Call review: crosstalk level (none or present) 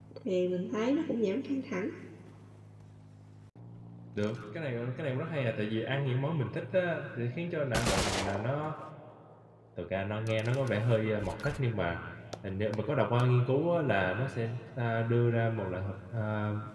none